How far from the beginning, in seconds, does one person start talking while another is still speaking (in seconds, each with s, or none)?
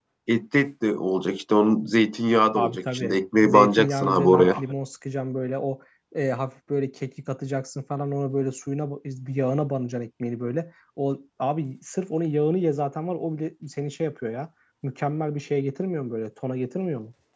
2.6 s